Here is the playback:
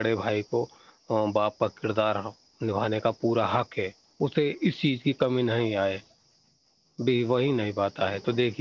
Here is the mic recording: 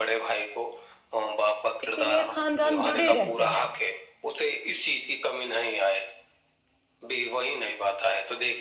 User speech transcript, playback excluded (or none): اسی لیے خاندان جڑے رہتے ہیں